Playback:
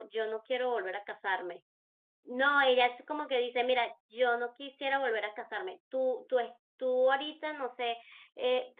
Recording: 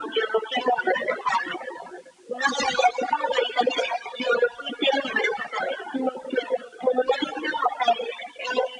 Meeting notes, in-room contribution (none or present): none